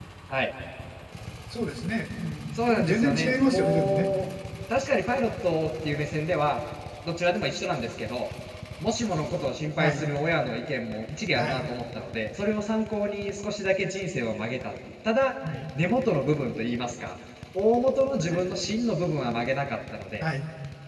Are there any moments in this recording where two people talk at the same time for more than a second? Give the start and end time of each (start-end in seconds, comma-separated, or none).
2.7-4.1